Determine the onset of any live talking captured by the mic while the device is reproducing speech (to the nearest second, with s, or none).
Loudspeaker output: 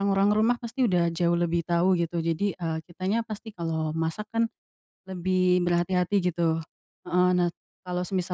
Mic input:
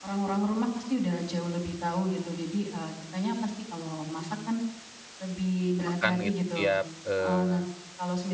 6 s